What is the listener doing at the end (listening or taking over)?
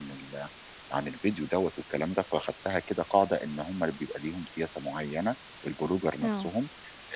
listening